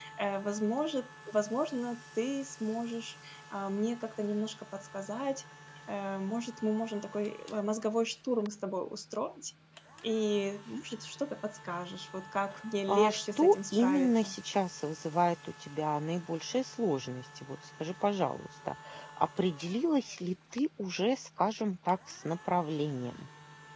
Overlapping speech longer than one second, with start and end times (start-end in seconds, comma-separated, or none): 12.9-14.3